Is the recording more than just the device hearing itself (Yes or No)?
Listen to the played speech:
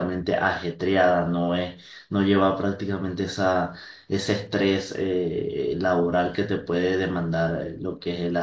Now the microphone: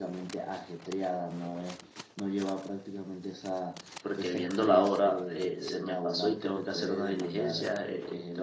Yes